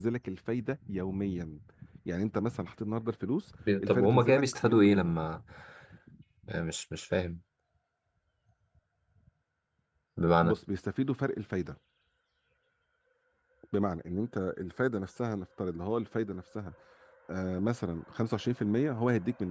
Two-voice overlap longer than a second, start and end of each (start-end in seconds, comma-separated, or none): 3.9-5.1